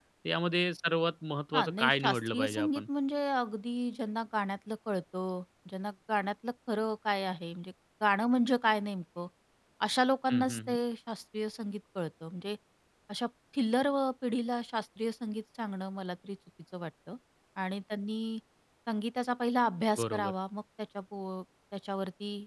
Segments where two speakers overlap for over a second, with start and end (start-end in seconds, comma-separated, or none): 1.5-2.8